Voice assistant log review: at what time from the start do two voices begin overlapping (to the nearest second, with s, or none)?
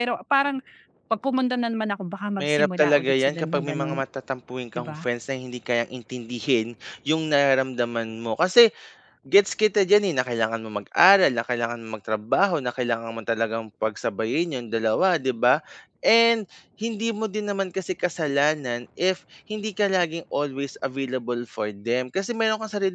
2 s